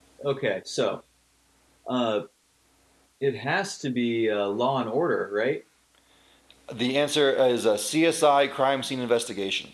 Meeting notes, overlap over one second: none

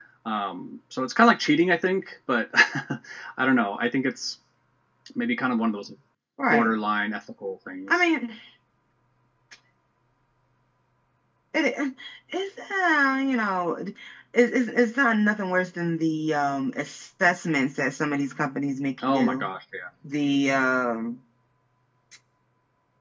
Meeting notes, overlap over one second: none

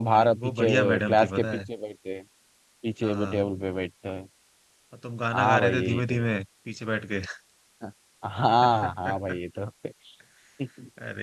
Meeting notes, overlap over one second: present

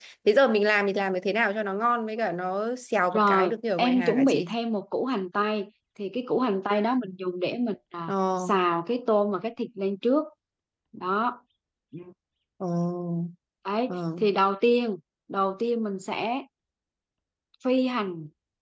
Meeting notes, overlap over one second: present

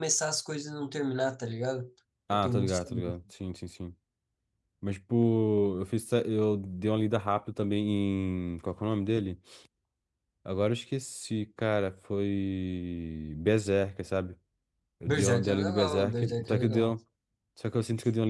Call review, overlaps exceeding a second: present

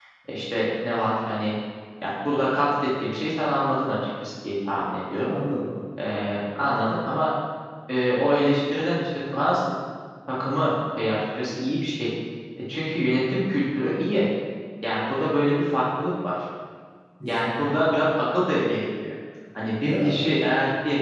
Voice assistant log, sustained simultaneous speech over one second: none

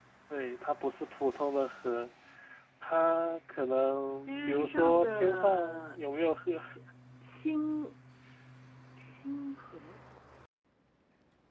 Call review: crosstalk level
present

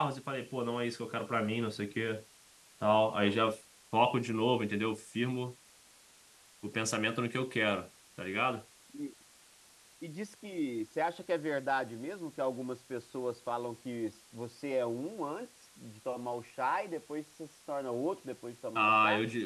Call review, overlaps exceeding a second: none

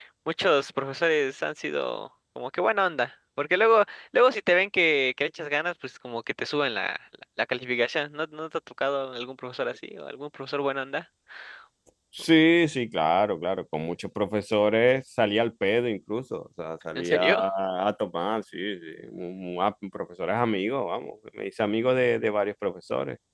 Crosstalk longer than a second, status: none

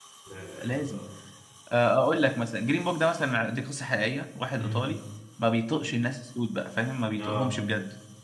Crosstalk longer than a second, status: none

